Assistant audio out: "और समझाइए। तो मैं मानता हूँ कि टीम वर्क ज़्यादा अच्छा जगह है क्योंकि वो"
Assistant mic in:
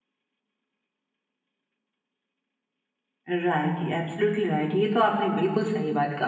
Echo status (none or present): none